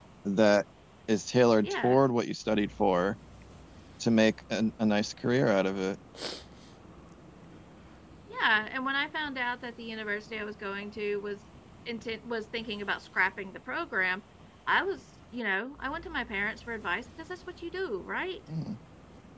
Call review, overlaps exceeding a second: none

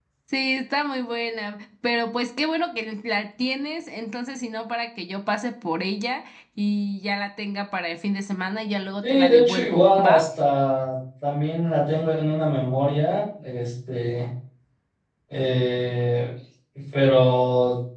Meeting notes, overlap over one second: present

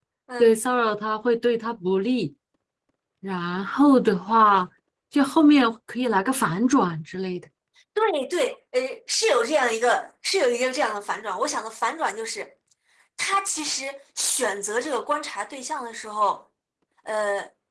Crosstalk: none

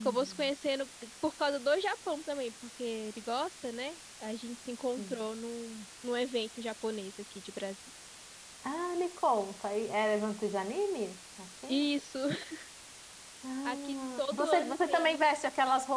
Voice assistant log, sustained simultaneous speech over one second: present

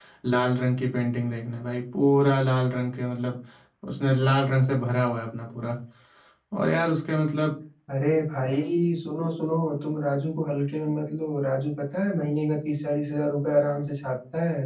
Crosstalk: none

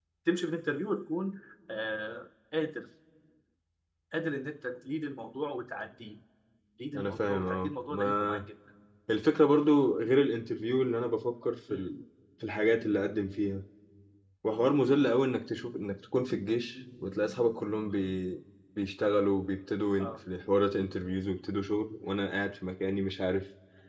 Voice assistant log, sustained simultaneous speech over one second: present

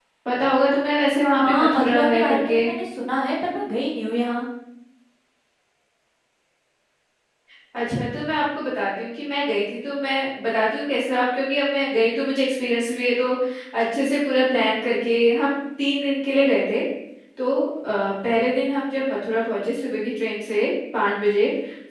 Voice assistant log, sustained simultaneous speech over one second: present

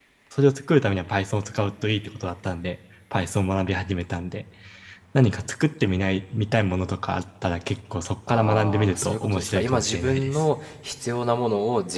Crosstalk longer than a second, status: present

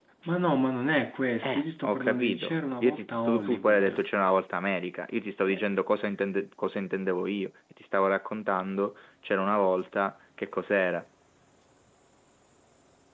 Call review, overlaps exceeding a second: present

